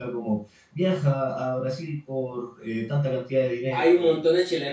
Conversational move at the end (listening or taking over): taking over